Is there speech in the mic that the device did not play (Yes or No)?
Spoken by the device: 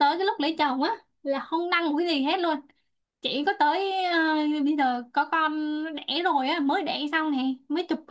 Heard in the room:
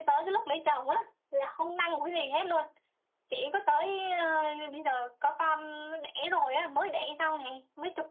No